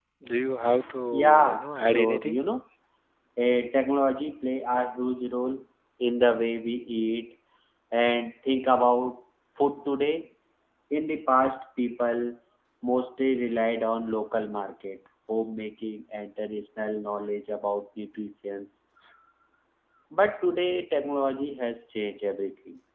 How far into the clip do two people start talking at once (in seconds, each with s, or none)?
1.1 s